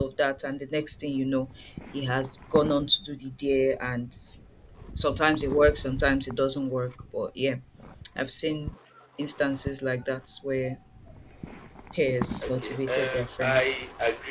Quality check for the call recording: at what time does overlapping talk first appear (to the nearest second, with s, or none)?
12 s